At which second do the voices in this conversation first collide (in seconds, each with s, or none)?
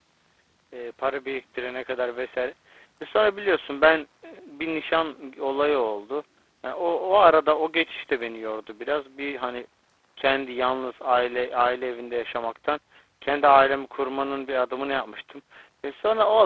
none